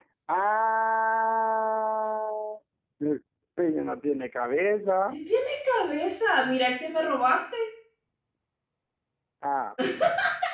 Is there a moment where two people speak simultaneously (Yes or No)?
No